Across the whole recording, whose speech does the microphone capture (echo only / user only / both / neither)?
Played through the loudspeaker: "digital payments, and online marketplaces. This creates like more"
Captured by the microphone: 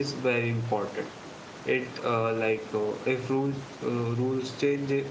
user only